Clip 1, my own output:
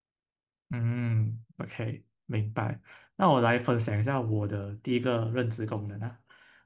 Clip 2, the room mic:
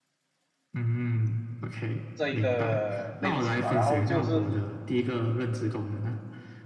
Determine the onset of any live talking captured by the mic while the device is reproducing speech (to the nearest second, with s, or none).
2 s